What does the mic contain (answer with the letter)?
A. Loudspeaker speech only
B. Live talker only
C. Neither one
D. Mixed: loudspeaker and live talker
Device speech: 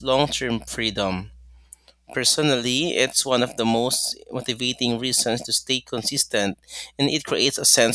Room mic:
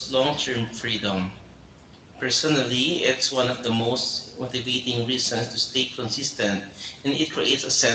A